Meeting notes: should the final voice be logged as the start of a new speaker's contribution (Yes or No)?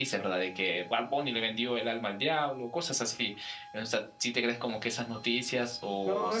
Yes